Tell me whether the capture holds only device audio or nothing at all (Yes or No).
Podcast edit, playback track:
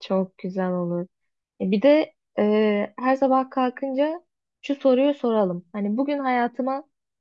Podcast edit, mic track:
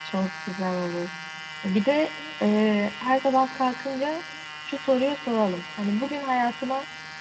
Yes